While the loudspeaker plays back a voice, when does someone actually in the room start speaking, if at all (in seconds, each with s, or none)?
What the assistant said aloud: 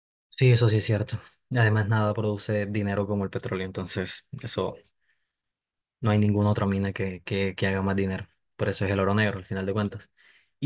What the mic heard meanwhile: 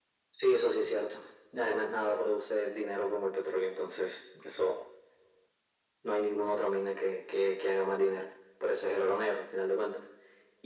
none